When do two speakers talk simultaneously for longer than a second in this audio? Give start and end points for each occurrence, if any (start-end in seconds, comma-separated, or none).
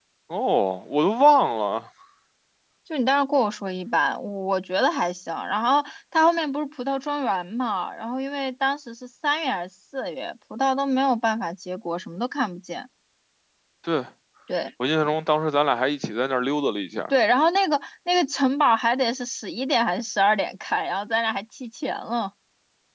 none